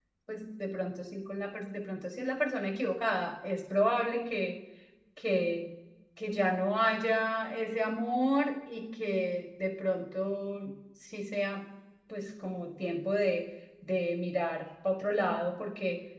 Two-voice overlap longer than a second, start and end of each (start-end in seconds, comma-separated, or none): none